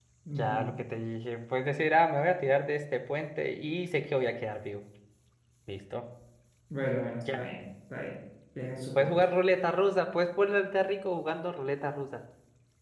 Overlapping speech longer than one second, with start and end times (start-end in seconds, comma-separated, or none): none